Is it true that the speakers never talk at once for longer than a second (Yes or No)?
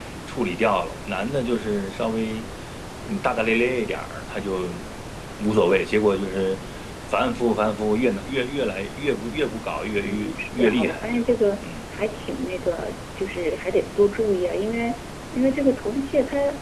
No